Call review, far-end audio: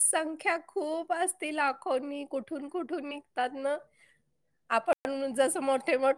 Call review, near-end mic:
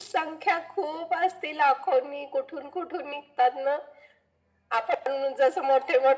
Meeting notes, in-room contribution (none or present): none